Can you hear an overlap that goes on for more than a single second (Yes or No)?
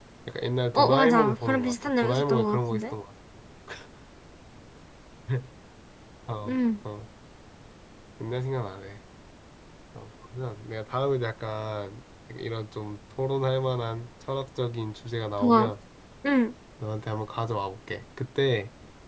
Yes